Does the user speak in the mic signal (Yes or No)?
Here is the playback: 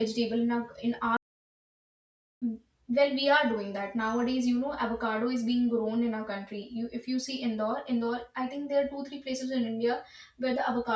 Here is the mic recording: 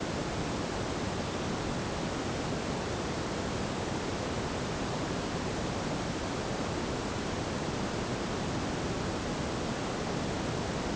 No